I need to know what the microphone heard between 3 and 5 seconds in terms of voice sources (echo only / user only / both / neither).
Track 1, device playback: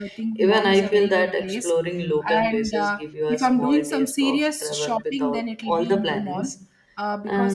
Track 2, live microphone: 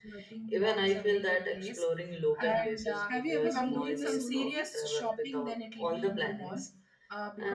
both